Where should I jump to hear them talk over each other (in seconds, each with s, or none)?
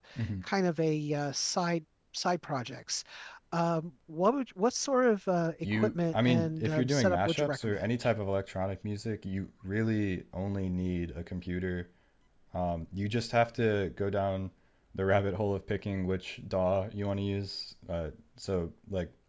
5.6 s